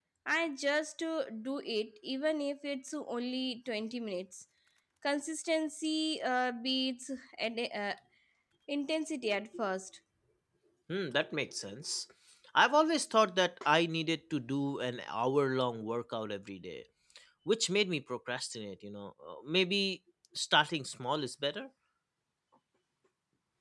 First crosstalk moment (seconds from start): none

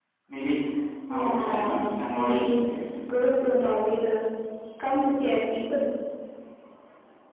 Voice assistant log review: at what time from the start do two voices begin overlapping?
1 s

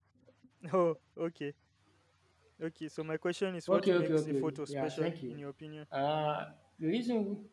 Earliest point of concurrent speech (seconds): 4 s

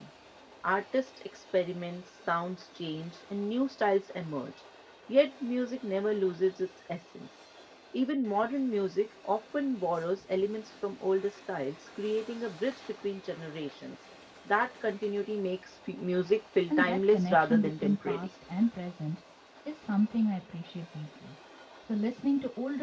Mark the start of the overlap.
17 s

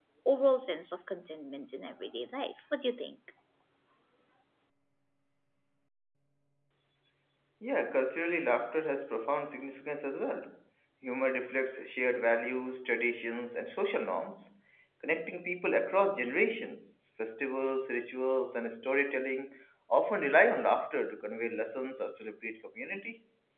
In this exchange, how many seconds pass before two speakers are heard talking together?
none

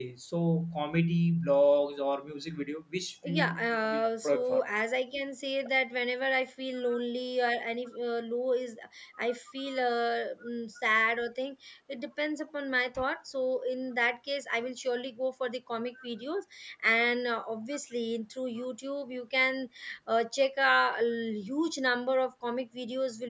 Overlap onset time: 3 s

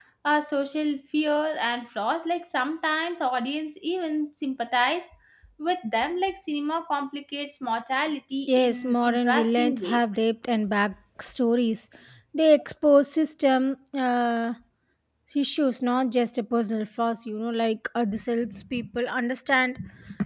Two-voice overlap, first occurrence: 8 s

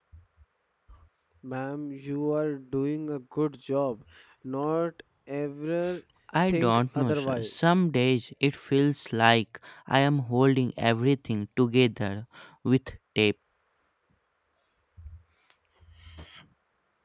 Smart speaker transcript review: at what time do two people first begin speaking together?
6 s

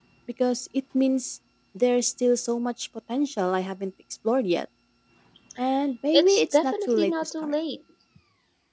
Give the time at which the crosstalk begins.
6 s

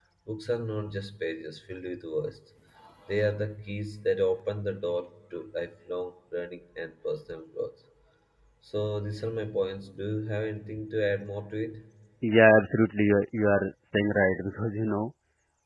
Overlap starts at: none

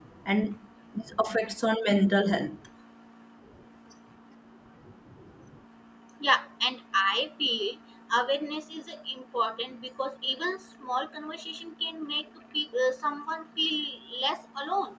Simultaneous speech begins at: none

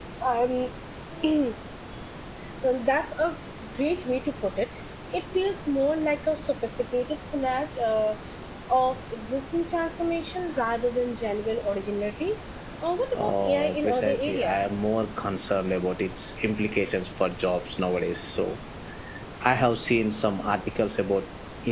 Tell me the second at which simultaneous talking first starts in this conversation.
13 s

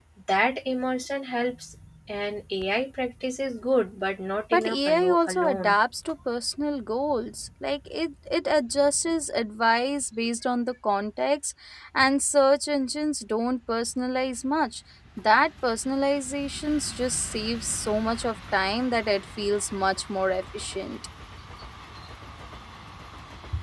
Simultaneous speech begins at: 5 s

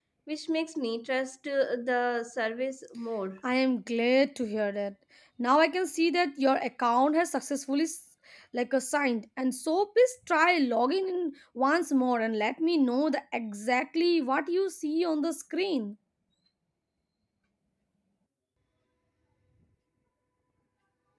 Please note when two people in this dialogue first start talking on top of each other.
none

